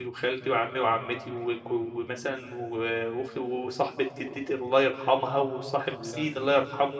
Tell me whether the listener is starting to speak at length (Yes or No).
No